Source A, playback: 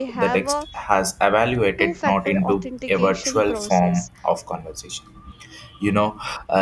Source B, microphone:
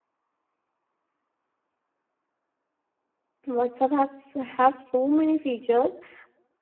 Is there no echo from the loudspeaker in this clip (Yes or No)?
Yes